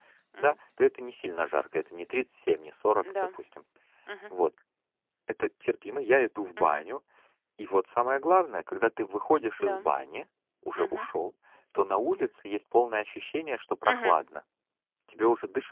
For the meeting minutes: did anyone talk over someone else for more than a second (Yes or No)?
No